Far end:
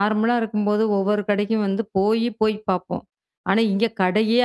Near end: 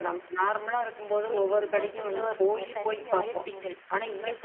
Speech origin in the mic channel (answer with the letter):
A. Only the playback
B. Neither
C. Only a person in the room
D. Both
D